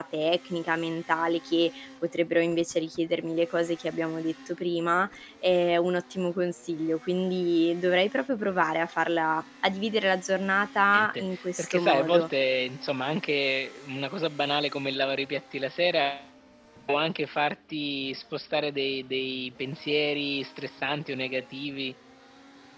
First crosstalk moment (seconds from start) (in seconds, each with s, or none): 10.9 s